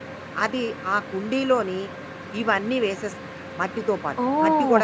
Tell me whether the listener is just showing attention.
No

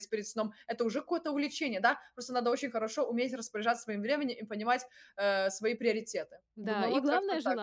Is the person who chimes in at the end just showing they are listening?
No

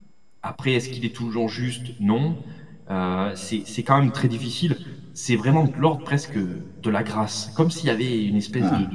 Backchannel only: Yes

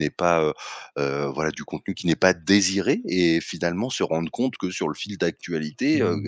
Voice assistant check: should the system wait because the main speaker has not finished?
Yes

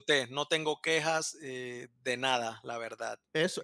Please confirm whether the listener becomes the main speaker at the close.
Yes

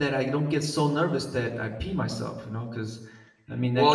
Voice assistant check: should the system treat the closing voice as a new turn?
Yes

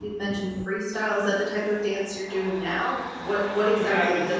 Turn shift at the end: Yes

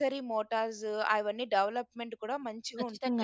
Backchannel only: No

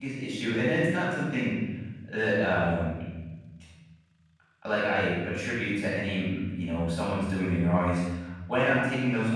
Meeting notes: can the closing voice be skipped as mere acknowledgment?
Yes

